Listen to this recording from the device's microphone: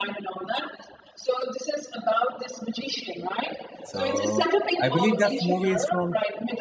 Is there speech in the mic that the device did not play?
Yes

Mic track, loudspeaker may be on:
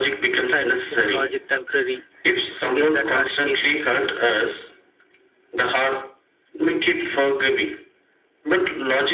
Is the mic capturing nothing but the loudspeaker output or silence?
Yes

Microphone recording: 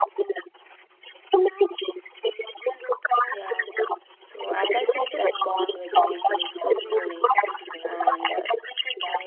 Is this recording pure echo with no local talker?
No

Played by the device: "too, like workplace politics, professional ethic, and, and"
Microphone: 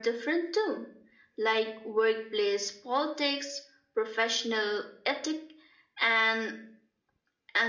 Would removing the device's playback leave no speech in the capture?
Yes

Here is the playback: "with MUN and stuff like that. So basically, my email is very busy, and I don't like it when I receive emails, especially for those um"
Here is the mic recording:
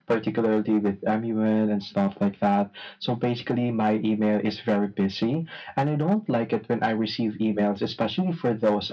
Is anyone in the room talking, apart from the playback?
No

